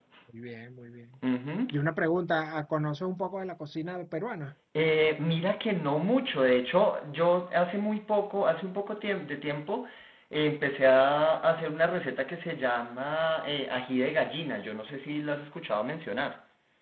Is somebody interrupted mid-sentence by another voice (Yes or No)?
No